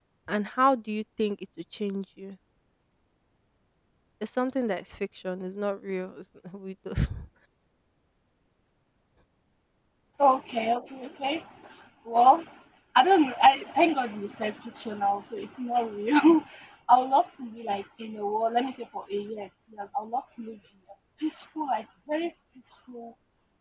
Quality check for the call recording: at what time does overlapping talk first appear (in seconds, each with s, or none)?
none